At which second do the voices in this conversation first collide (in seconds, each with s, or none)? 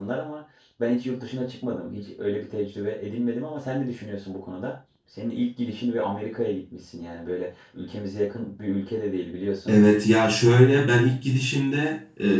none